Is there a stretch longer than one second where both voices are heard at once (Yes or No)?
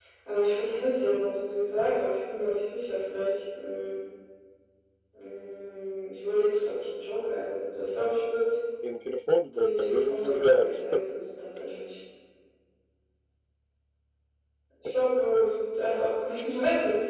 Yes